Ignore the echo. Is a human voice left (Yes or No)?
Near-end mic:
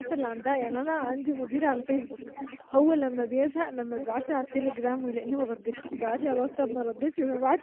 Yes